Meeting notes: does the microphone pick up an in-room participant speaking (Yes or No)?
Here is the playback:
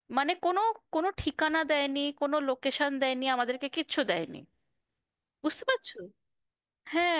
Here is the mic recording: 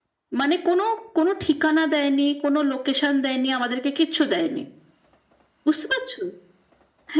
No